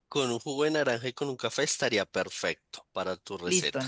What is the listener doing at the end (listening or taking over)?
taking over